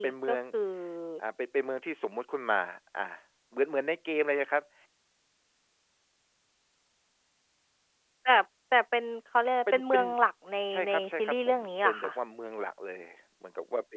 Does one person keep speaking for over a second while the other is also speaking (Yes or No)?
Yes